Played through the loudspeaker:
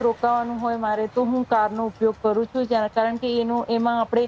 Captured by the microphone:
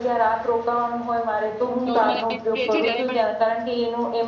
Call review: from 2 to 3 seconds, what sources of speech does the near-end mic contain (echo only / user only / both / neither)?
both